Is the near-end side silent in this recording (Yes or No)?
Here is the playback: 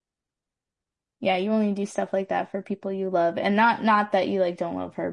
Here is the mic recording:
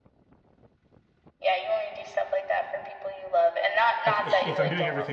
No